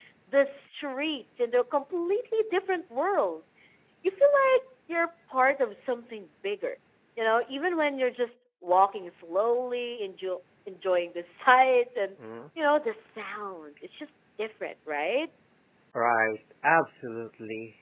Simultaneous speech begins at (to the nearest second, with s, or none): none